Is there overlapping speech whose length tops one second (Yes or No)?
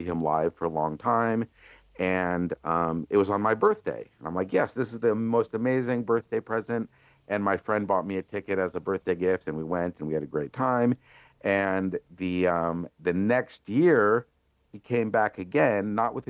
No